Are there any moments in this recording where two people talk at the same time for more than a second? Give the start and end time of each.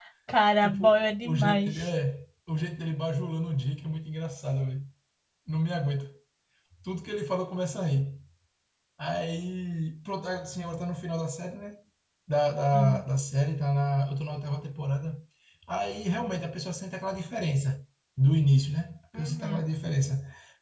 0.6-1.9

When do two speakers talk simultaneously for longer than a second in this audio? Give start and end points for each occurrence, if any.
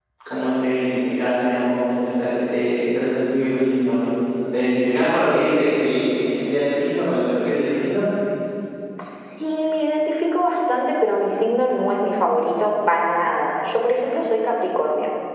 none

